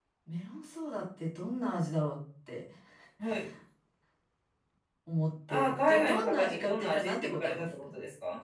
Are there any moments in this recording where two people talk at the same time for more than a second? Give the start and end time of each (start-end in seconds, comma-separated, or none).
5.5-7.8